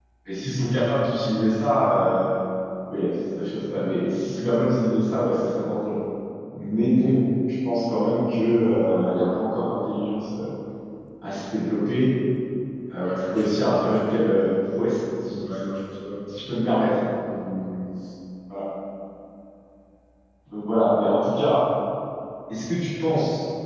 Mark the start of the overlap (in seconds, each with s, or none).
13.0 s